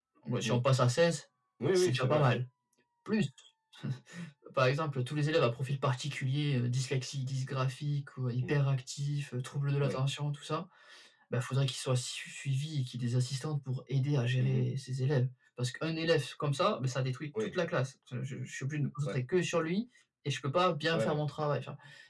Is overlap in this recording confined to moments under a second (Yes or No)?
Yes